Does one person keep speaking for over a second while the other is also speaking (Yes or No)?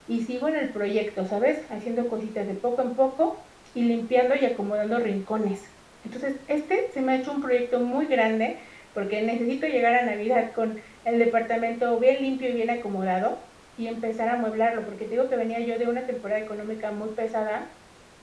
No